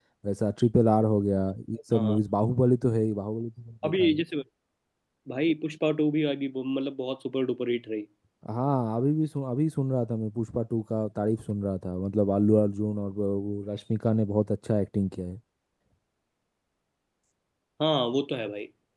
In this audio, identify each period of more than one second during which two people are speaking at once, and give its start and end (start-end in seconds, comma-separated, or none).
none